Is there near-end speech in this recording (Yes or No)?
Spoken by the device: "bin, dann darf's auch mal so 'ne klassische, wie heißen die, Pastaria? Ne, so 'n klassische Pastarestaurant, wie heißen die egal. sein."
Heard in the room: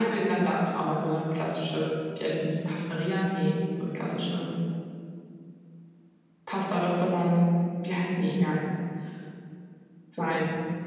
No